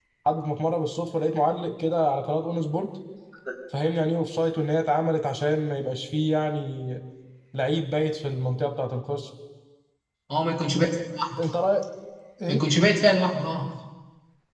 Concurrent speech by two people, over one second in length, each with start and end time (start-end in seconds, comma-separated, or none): none